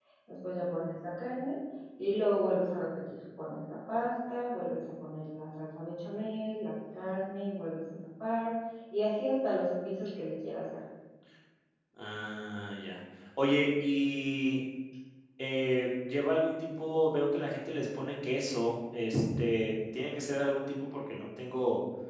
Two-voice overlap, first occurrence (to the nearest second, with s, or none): none